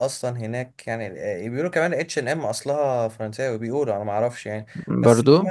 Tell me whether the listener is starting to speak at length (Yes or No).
No